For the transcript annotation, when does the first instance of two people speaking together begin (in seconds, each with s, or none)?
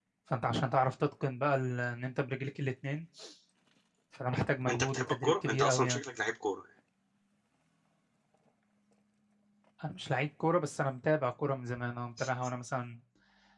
4.7 s